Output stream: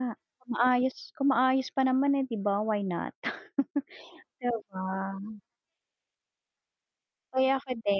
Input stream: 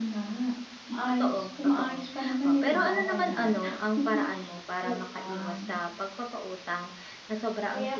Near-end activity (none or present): present